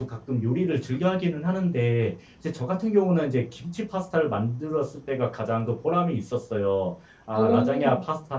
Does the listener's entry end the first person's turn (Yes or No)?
No